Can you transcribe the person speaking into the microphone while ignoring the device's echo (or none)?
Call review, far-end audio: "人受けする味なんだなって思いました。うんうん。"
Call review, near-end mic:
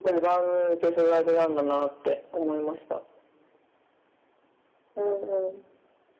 none